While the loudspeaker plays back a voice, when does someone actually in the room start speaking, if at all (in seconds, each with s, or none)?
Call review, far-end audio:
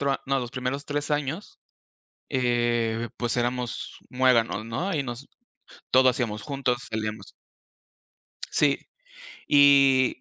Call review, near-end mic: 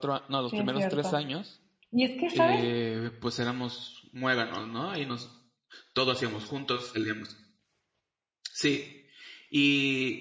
0.5 s